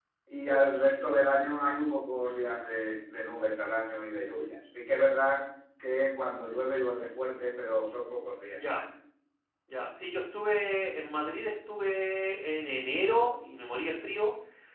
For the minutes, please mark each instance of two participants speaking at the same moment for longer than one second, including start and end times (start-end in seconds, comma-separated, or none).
none